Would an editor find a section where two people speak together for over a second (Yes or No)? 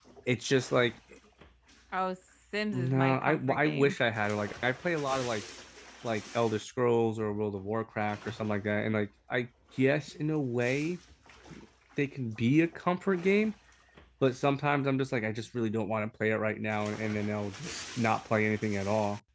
Yes